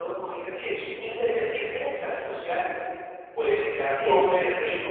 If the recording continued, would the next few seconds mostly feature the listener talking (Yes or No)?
No